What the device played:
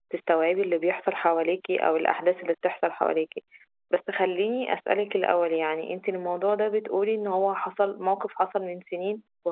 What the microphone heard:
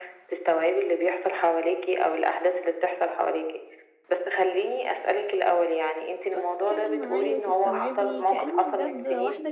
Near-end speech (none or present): present